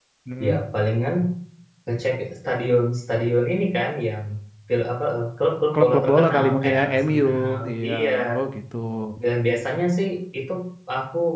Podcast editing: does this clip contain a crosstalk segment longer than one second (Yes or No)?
Yes